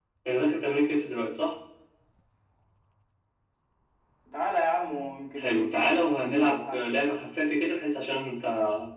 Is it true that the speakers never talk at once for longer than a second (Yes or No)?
No